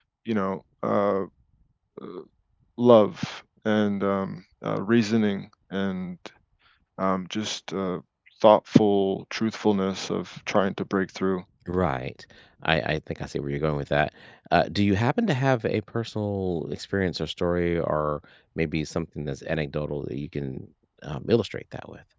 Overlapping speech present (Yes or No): No